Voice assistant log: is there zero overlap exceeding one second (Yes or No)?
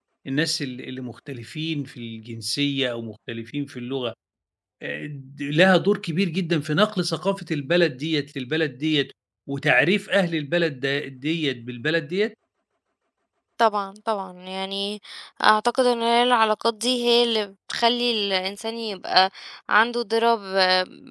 Yes